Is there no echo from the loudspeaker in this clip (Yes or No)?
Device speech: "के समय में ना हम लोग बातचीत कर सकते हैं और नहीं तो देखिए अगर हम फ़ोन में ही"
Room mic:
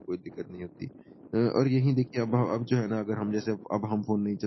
Yes